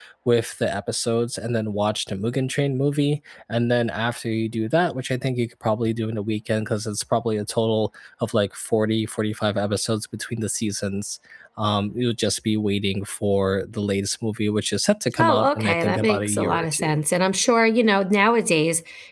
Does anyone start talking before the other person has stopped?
Yes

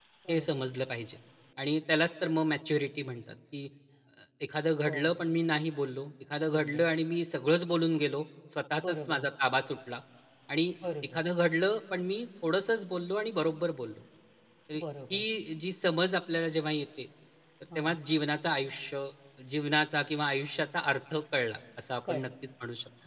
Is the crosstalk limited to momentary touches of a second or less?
Yes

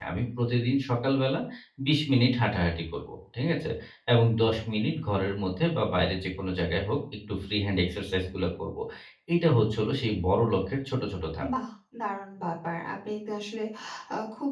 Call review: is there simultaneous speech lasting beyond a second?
No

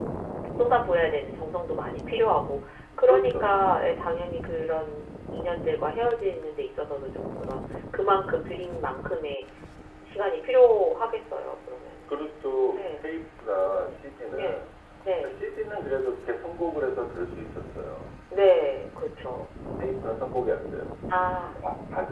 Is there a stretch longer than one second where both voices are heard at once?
No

